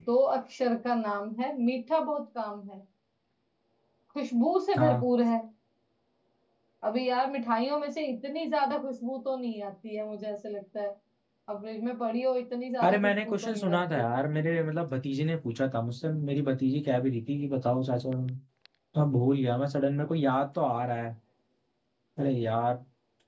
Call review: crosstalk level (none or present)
present